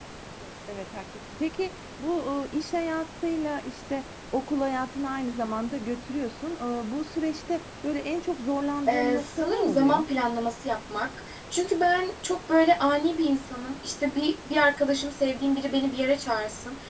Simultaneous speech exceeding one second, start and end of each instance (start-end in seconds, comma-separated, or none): 8.9-10.1